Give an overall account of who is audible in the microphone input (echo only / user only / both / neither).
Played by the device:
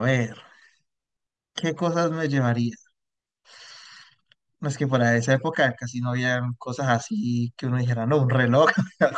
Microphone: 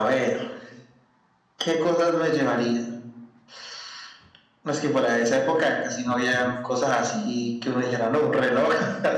both